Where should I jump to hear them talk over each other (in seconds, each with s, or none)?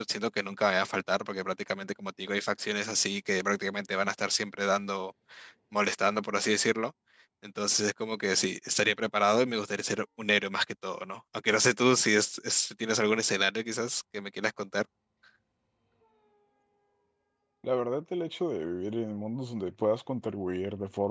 none